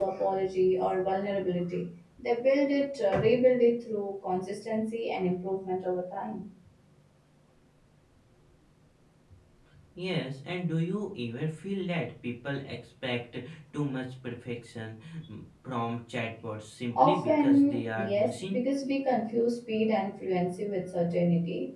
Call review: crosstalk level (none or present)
present